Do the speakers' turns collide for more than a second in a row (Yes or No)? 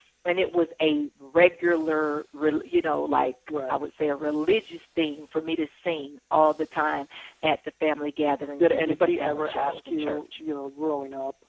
Yes